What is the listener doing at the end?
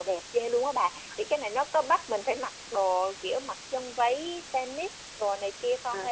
taking over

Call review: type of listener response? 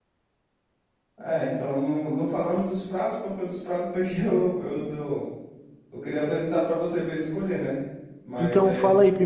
taking over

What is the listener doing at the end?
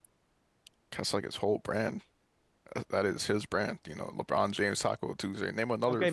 taking over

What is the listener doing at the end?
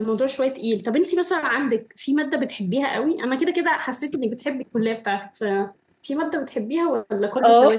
taking over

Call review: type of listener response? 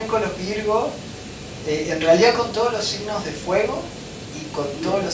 listening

